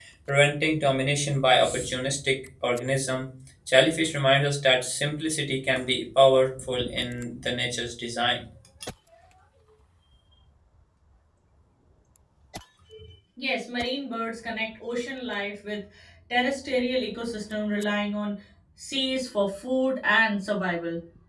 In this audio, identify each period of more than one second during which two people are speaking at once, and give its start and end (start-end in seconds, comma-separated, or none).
none